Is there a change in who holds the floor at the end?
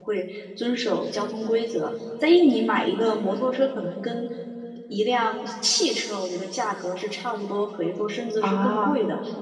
No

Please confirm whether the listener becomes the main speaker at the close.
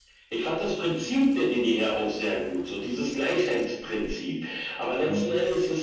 No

